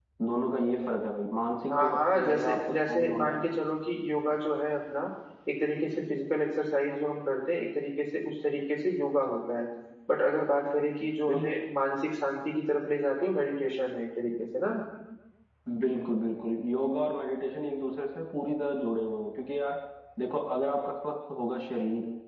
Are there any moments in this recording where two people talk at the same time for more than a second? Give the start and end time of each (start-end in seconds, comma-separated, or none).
1.7-3.4